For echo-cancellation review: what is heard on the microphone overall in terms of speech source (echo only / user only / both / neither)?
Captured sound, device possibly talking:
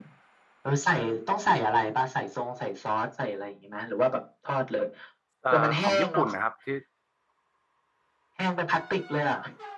both